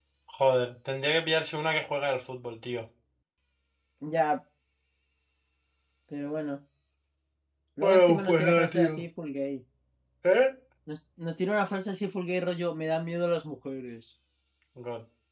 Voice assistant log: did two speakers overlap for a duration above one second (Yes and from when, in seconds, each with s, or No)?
Yes, from 7.8 s